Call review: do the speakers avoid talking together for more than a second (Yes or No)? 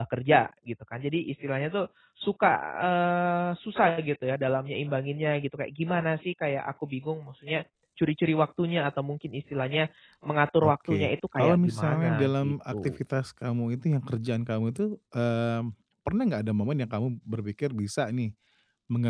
No